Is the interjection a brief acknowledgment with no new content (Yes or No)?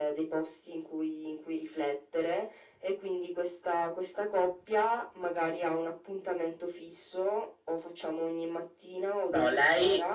No